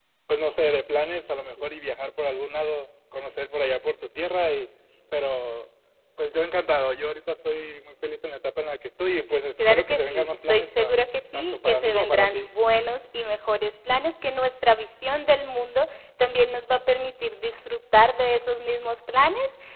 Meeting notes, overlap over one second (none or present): present